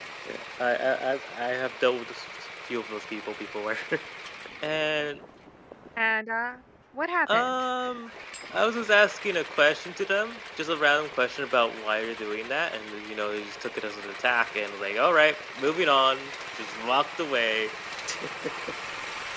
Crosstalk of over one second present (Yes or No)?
No